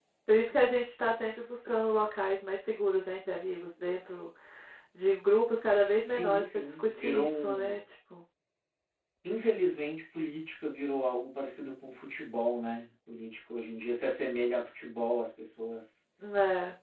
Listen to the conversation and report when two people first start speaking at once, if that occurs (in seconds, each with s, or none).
6.0 s